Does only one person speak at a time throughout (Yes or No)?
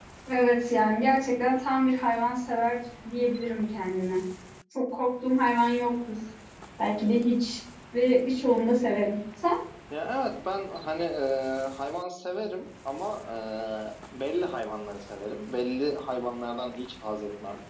Yes